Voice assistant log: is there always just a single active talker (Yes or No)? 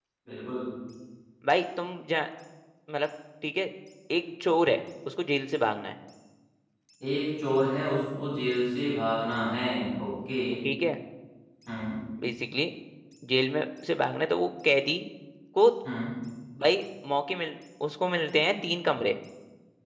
Yes